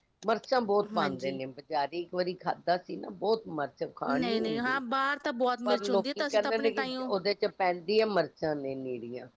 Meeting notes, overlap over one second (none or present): present